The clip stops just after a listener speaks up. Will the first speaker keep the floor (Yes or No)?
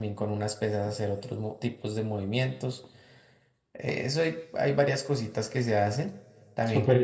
No